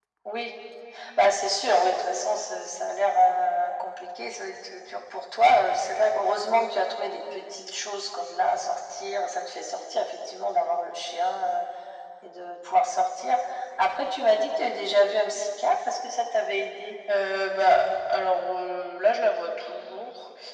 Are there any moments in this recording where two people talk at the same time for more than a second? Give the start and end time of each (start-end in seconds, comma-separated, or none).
none